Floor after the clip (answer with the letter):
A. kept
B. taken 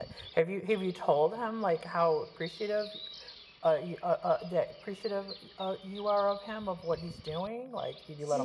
B